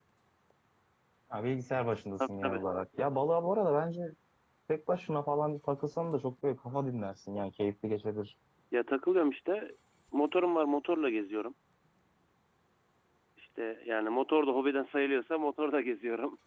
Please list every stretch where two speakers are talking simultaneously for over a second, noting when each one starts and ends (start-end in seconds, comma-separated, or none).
none